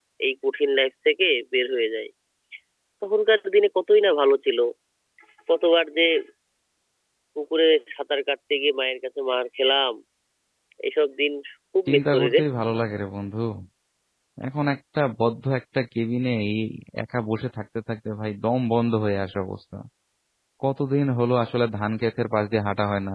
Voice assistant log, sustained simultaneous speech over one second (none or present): none